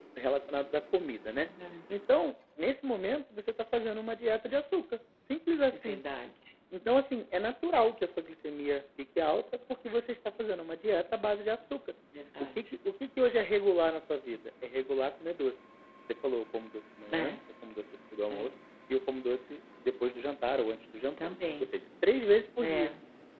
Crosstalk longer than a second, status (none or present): none